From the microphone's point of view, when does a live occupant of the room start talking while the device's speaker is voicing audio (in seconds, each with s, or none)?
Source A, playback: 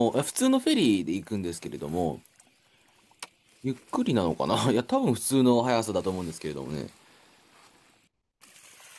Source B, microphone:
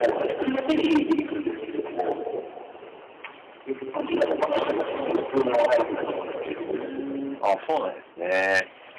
6.6 s